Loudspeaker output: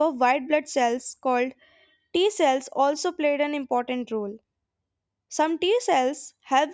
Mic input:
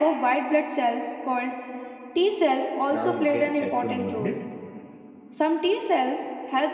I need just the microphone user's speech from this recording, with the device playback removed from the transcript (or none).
Now, you can add two more in it.